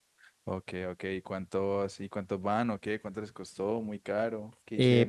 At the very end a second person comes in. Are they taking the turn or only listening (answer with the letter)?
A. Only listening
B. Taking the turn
B